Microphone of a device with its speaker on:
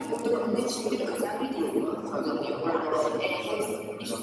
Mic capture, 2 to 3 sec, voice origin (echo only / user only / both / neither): echo only